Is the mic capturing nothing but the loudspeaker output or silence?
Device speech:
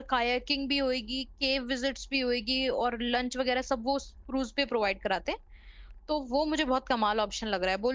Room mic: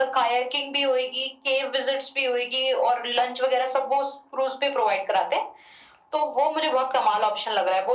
Yes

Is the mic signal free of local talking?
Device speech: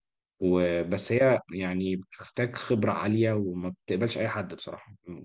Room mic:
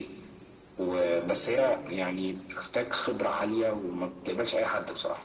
No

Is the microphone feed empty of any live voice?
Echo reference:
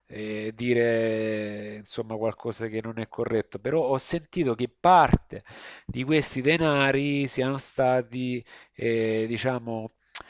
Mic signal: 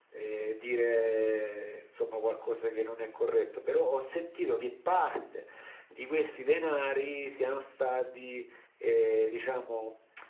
Yes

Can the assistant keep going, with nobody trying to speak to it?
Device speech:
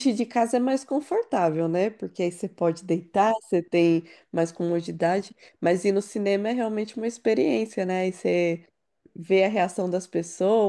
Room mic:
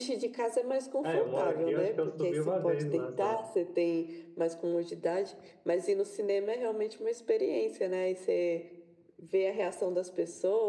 No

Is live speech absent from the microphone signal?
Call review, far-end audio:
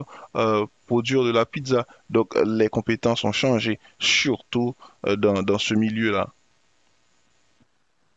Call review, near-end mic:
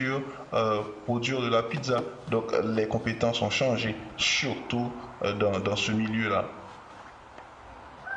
Yes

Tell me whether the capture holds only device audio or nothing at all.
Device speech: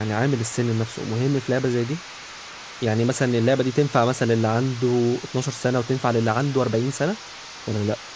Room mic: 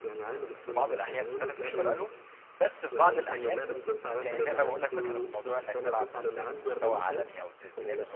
No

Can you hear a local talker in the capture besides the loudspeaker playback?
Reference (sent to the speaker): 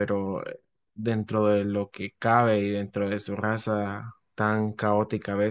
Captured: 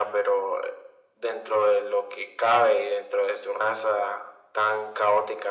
No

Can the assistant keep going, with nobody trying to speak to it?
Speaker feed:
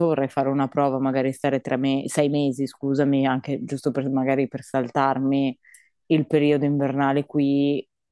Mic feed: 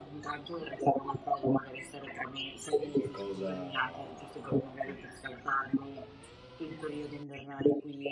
No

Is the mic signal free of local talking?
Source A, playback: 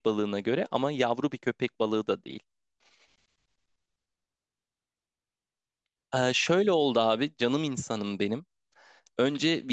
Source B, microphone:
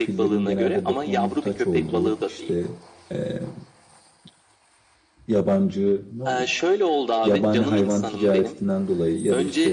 No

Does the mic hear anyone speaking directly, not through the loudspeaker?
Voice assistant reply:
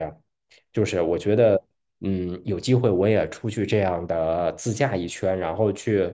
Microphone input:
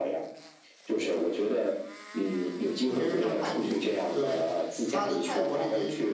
Yes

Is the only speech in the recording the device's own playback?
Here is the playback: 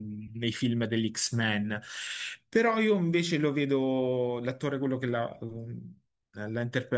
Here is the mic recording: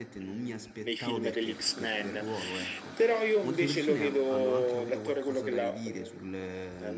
No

